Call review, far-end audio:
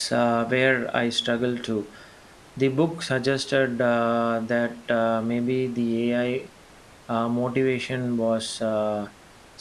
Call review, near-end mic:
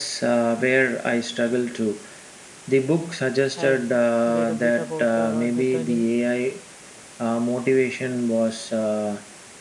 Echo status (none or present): present